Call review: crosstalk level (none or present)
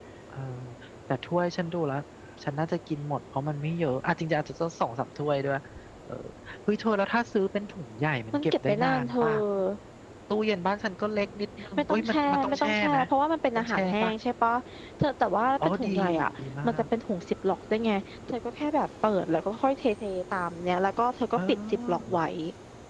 present